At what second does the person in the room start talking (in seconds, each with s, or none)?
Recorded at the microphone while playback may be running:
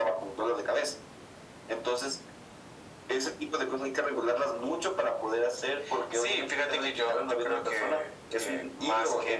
none